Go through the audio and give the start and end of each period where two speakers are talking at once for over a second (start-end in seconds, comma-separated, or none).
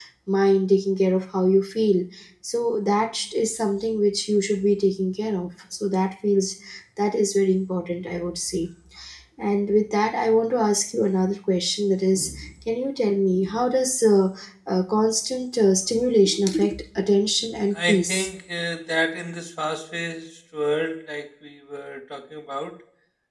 none